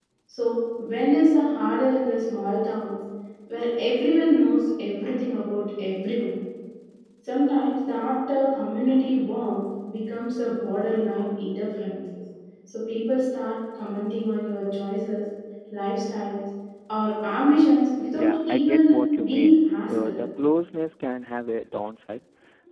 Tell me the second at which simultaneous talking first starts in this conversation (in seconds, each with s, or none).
18.1 s